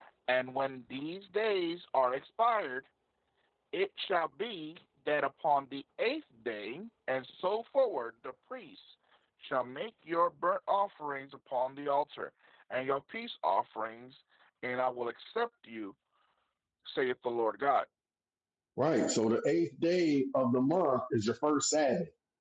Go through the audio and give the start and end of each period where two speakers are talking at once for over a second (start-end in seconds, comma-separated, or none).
none